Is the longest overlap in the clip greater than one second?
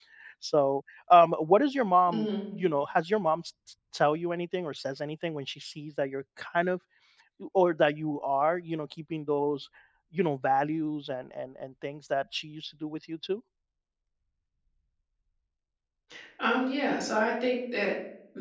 No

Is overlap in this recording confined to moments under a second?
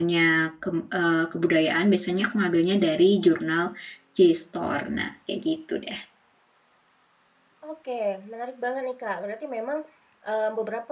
Yes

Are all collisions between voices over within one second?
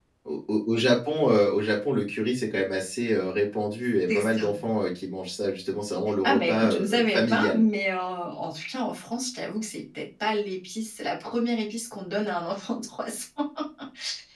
No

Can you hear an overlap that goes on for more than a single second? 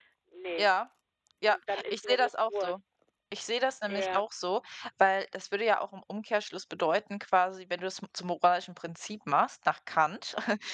Yes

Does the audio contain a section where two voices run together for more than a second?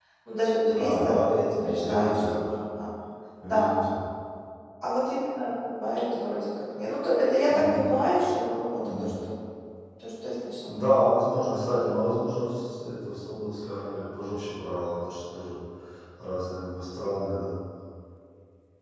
Yes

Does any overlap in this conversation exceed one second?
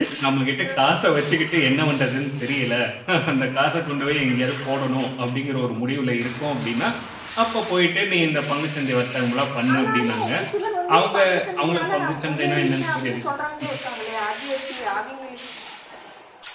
Yes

